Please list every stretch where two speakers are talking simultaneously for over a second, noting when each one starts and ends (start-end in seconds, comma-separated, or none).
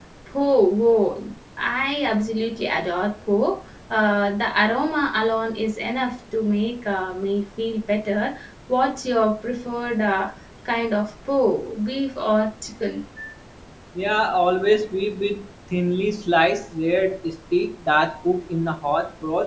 none